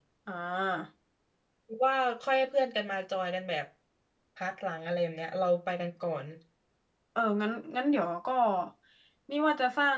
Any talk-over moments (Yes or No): No